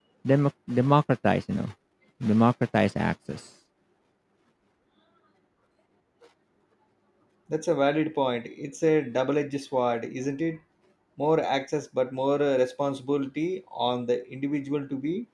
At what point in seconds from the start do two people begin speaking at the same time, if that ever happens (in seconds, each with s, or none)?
none